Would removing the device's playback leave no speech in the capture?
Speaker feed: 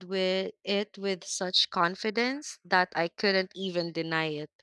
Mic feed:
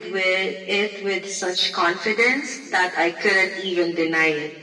Yes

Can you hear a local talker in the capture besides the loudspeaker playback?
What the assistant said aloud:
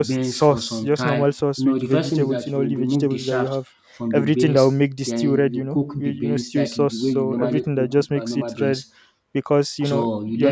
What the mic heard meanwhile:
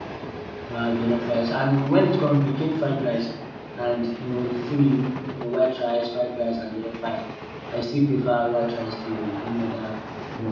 Yes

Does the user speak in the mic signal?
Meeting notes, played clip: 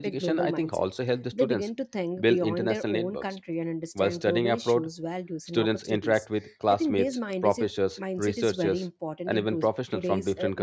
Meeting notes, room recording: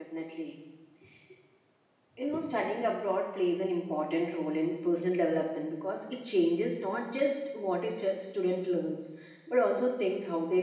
Yes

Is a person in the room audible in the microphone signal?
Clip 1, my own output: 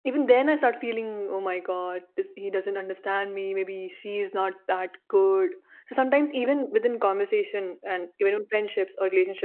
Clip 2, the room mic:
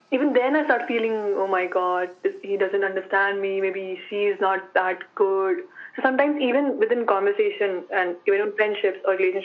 No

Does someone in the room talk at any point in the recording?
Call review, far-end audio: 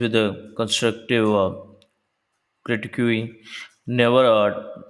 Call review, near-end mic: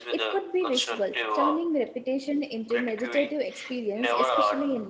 Yes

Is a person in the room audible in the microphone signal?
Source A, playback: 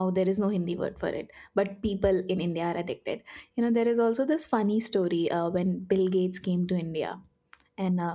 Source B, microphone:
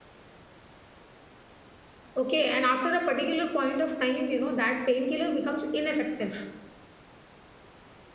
Yes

